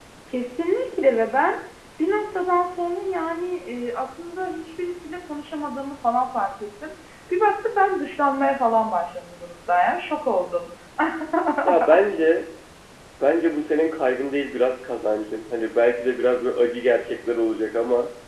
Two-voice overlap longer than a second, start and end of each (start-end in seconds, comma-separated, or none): none